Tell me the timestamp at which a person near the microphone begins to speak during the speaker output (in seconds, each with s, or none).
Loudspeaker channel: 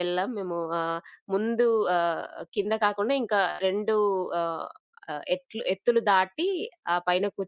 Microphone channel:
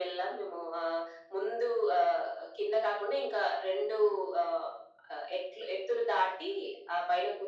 none